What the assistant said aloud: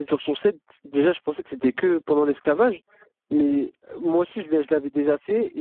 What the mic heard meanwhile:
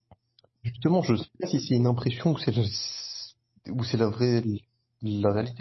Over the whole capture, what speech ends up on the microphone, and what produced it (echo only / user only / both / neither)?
user only